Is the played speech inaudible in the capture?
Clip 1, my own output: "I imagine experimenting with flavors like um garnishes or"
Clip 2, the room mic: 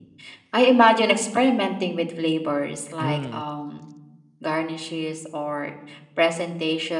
No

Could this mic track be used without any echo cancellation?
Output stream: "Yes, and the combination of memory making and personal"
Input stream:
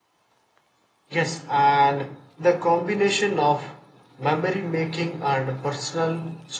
No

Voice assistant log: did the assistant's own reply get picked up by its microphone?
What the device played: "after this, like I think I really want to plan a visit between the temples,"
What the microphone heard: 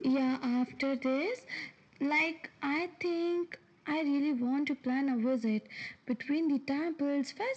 Yes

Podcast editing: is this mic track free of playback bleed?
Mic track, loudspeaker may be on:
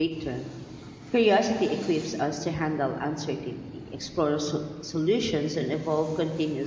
Yes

